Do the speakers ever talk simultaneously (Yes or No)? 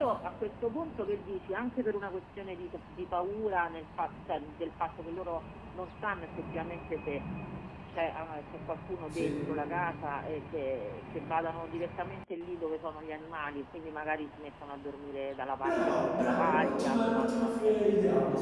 Yes